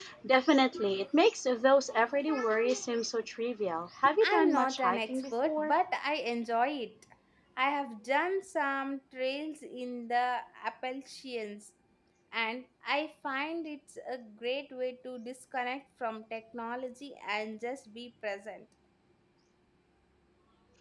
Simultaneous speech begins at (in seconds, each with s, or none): 4.0 s